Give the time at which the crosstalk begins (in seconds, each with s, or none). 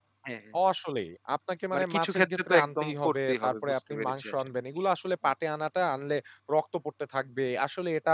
1.7 s